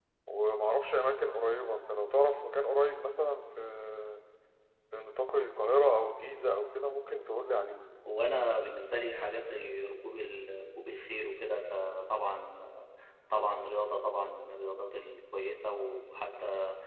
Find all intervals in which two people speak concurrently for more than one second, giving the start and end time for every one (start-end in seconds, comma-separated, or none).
none